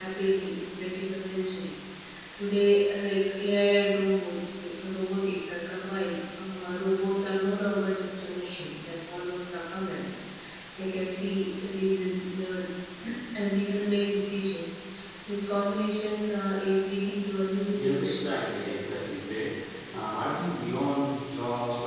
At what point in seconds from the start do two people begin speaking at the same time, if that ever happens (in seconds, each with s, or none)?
17.8 s